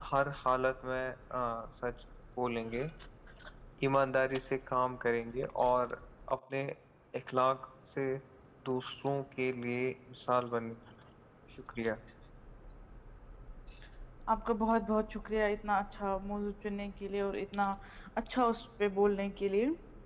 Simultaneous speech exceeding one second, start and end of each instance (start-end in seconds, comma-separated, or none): none